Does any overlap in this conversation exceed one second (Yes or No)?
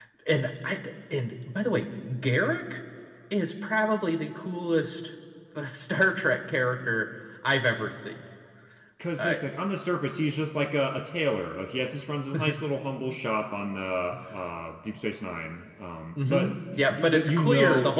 Yes